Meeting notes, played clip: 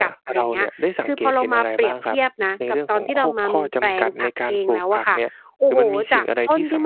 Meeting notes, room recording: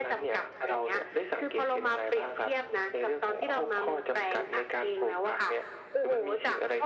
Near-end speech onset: none

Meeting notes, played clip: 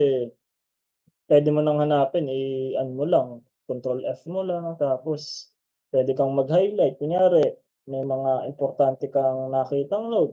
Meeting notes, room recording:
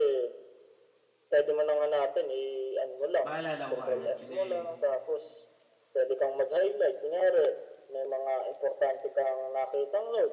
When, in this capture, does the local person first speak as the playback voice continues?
3.2 s

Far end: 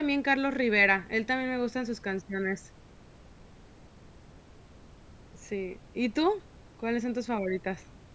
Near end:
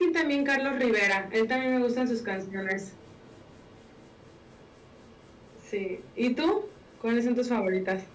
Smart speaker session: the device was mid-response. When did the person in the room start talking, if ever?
none

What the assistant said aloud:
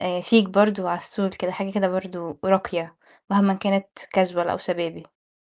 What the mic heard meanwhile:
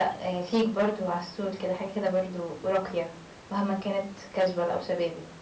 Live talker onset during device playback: none

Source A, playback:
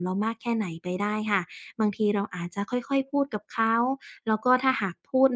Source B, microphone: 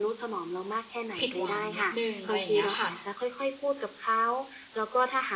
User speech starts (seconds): 1.2 s

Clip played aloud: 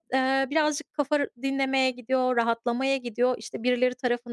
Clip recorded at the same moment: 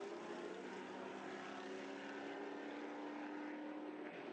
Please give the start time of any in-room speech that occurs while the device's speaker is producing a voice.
none

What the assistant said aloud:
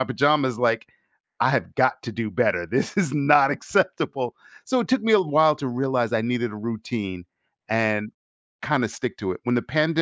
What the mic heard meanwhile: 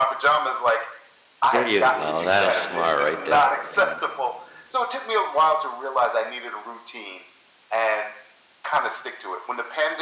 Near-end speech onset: 1.5 s

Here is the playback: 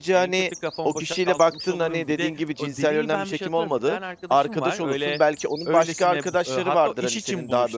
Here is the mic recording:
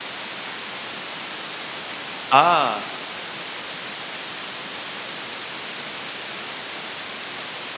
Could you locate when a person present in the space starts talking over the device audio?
2.3 s

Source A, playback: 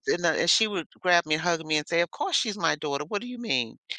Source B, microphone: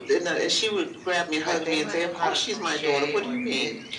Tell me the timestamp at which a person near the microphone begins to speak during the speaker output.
1.4 s

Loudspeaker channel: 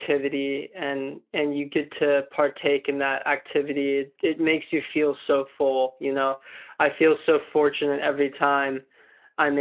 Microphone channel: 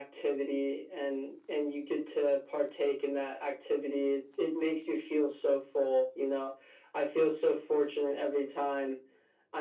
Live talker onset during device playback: none

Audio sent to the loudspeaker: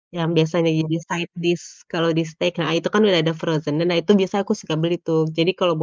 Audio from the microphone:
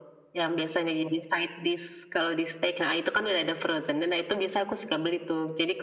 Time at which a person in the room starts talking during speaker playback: none

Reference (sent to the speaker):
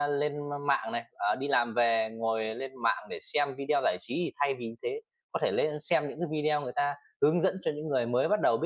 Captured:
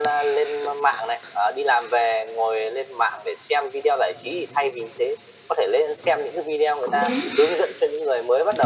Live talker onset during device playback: 6.8 s

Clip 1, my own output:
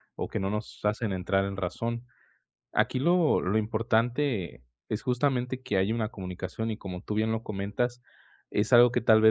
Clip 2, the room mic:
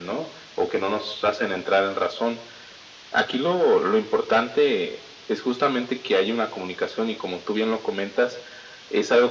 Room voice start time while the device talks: none

